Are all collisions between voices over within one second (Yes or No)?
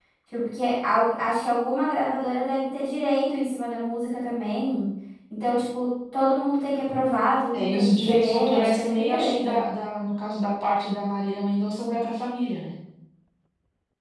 No